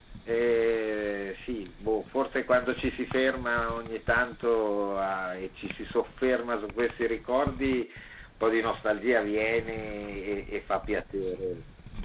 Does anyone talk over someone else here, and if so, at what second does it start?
none

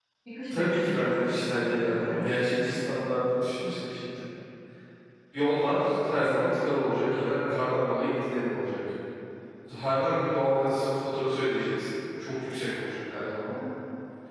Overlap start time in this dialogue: 0.5 s

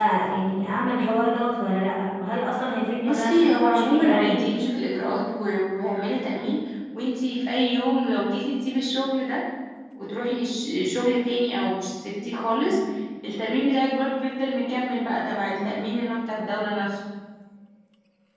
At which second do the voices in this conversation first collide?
3.0 s

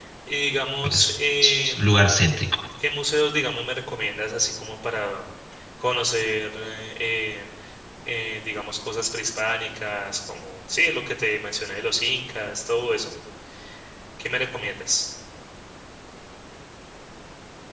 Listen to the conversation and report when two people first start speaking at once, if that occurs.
0.8 s

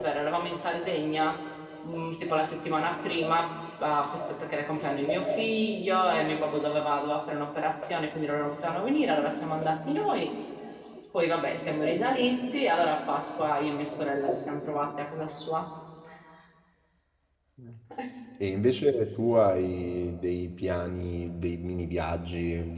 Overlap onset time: none

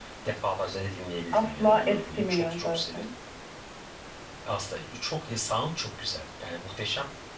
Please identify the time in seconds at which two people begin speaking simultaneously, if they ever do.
1.3 s

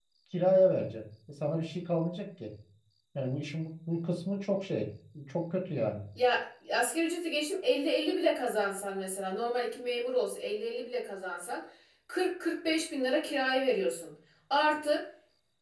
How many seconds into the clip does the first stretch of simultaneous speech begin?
none

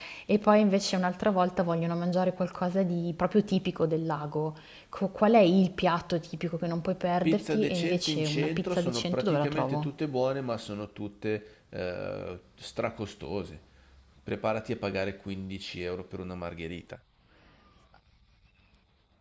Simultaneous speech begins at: 7.2 s

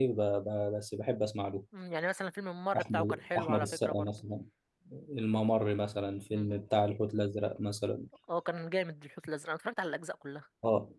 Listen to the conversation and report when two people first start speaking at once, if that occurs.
2.7 s

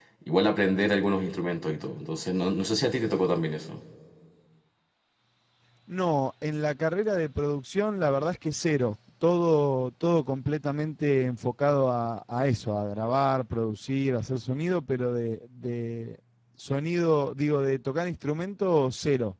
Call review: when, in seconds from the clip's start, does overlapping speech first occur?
none

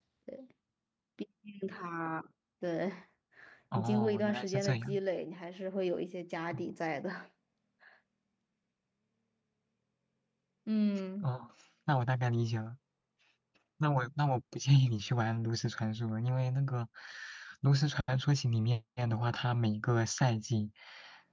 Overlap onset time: 3.8 s

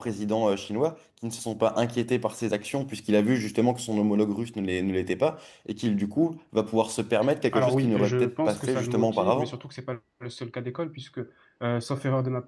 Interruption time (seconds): 7.5 s

